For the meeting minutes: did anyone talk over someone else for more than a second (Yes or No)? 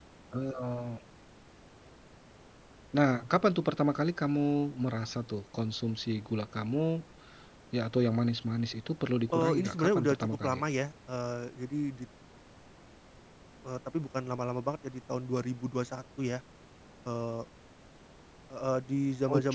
Yes